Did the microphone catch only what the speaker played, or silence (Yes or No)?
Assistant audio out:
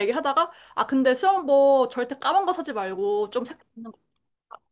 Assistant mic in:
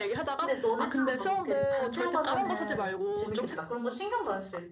No